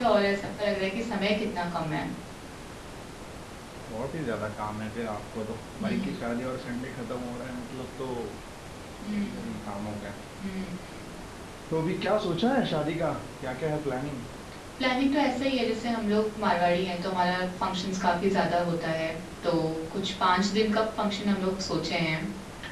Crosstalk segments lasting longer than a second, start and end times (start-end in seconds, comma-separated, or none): none